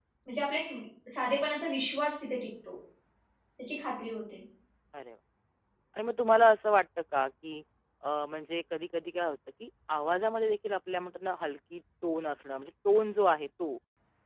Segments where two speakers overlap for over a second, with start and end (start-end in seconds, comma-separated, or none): none